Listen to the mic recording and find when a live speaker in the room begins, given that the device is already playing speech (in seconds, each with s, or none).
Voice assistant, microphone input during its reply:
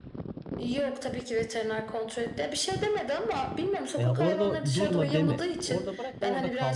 4.0 s